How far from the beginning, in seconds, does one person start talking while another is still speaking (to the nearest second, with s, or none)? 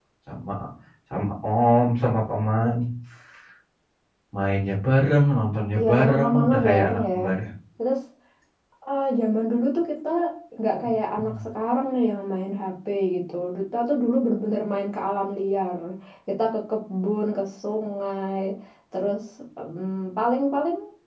6 s